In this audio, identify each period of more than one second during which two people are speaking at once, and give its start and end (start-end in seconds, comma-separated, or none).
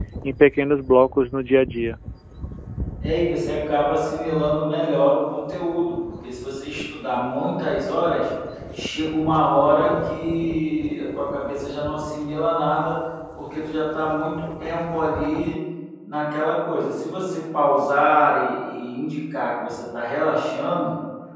none